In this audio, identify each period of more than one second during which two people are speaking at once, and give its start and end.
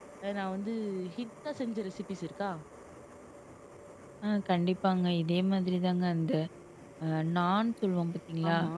none

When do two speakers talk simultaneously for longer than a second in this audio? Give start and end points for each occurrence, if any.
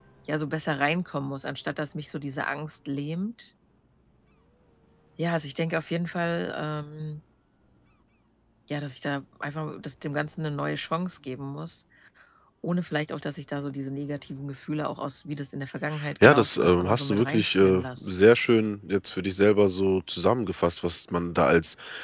16.2-18.1

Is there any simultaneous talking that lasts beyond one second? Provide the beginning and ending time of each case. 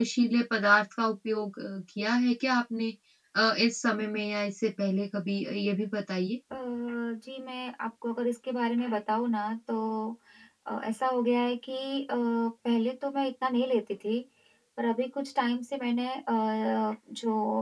none

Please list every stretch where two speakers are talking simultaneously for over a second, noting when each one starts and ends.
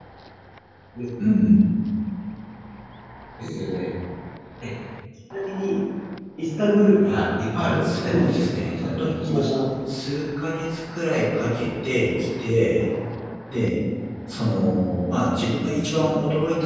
7.8-9.6

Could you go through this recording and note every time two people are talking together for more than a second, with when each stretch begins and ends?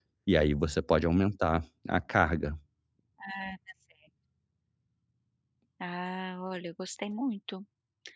none

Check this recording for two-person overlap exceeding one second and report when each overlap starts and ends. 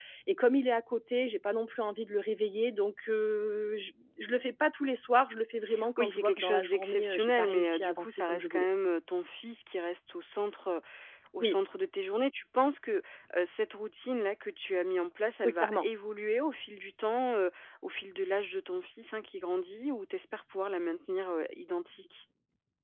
6.0-8.7

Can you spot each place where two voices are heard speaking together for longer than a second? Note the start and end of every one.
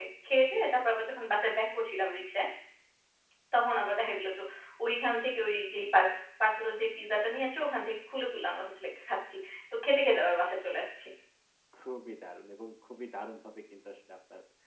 none

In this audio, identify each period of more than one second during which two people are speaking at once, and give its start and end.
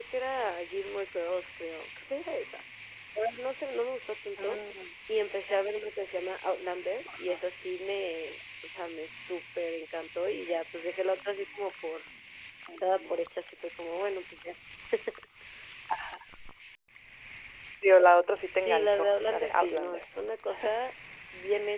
18.5-20.0

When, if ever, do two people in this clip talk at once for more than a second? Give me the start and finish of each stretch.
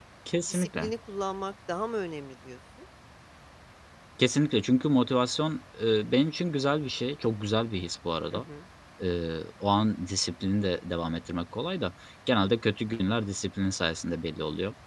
none

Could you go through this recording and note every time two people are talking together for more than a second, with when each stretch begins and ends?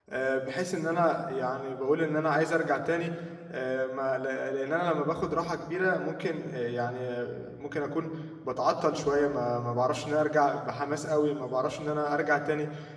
none

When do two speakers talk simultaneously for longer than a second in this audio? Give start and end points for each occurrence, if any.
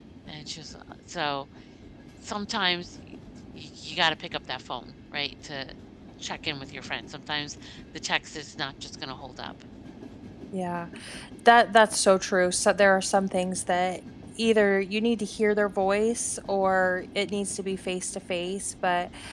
none

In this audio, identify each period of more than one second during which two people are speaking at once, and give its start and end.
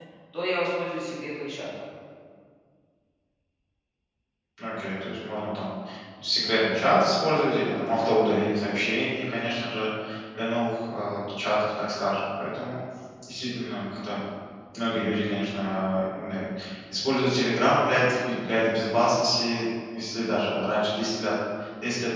none

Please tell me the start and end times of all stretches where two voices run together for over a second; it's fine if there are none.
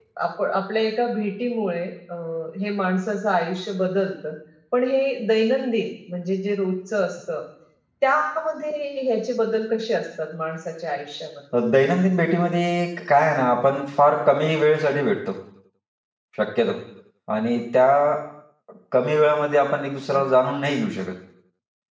none

